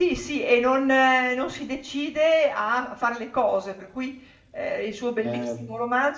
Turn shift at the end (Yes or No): No